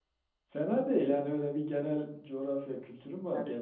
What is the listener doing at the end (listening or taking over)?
taking over